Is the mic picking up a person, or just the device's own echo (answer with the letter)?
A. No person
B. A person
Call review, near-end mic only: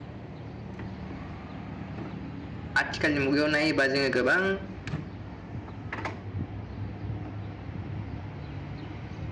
B